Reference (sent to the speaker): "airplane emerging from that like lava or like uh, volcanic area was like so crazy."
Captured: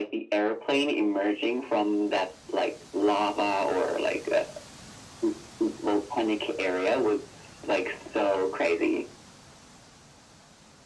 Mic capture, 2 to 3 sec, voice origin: echo only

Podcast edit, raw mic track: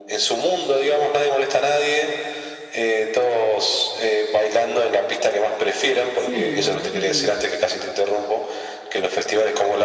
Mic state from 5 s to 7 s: both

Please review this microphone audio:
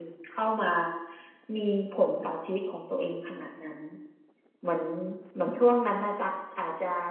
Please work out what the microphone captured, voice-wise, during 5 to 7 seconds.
user only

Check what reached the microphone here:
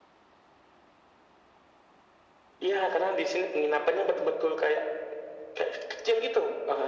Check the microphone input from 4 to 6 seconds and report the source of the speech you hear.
echo only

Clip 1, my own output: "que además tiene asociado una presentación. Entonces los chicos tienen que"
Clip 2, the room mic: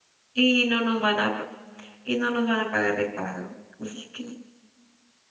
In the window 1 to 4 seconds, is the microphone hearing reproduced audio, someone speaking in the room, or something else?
user only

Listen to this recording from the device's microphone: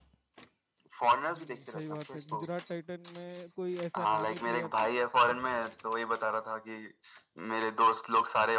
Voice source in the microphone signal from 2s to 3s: both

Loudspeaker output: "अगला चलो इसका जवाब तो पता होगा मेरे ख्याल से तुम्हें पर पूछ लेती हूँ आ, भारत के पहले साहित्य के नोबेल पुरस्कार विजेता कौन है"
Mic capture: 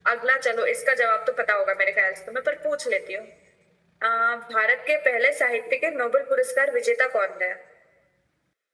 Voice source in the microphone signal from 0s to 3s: echo only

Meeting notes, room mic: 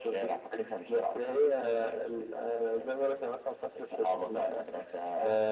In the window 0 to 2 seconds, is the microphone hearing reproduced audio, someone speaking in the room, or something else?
echo only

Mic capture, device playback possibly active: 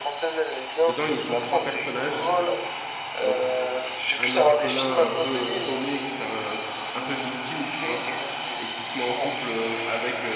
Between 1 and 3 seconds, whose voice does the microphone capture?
both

